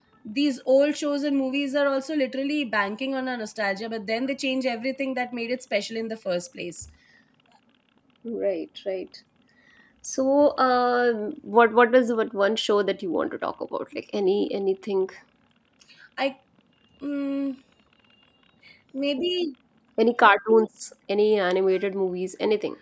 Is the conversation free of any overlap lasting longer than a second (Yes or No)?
Yes